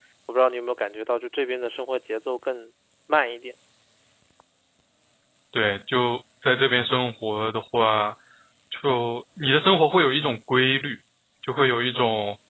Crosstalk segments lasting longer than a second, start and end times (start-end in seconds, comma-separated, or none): none